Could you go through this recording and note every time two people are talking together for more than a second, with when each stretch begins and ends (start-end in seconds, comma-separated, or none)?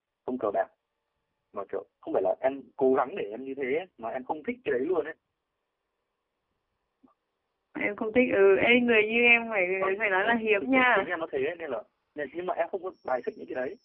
9.8-11.1